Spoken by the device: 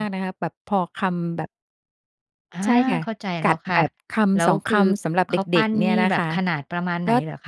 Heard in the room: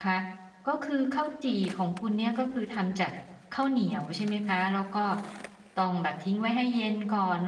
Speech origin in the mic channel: user only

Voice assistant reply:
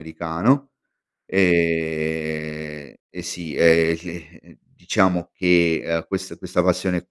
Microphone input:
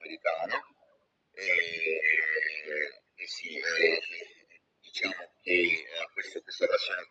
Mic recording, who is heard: echo only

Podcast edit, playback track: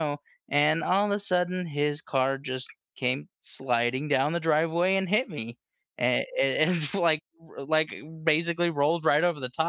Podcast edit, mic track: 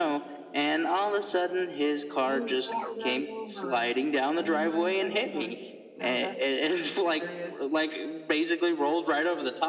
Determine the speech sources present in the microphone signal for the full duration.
both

